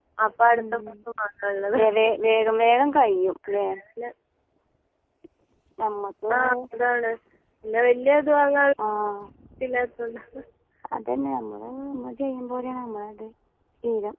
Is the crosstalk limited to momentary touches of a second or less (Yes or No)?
Yes